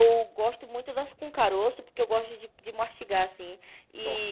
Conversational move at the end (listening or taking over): listening